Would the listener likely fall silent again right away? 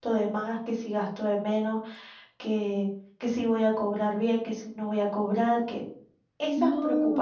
Yes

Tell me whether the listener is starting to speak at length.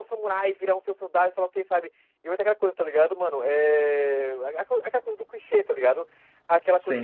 No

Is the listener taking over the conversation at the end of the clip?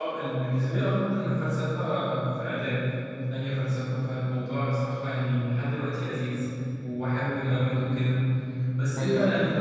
No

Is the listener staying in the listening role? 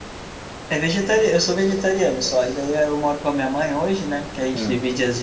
Yes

